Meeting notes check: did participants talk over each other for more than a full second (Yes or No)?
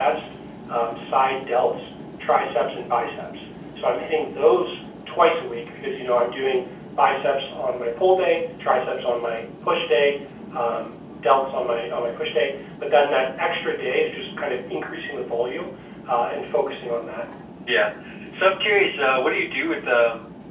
No